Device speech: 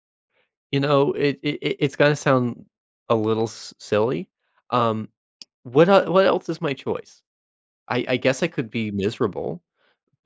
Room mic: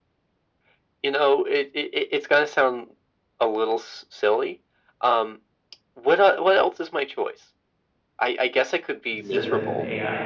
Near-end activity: present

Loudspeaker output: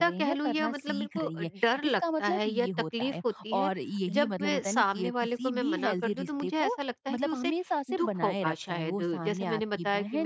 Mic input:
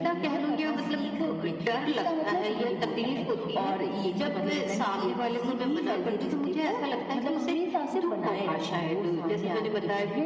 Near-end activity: none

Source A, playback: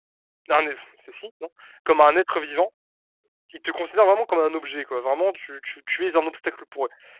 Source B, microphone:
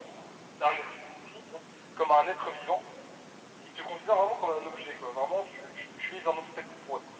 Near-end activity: none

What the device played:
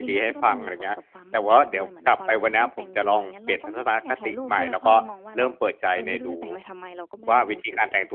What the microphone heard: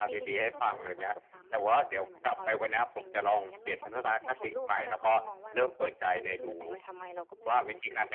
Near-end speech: none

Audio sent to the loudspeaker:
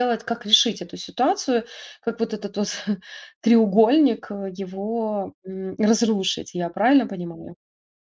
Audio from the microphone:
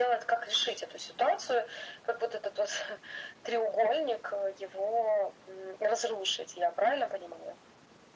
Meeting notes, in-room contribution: none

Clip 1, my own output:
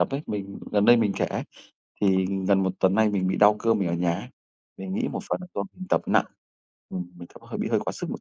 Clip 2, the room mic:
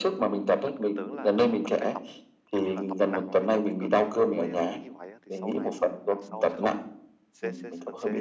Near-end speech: present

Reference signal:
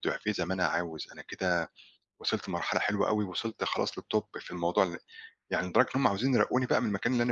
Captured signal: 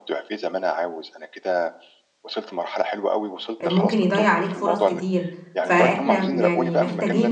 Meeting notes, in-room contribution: present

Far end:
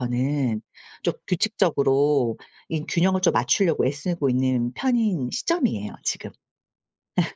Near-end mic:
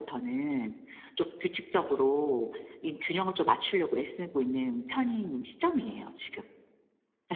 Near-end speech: none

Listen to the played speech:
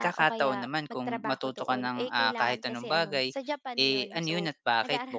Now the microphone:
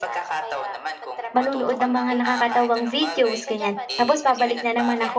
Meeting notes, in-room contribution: present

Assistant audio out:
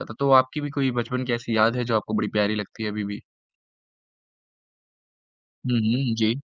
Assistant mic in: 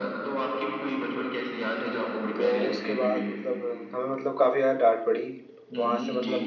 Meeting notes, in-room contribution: present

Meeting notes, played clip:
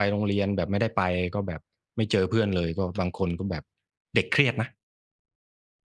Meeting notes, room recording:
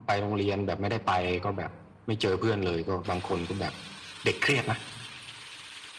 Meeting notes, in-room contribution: none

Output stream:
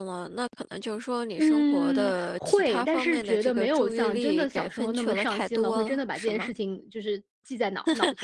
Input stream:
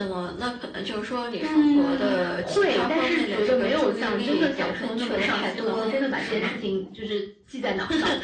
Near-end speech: none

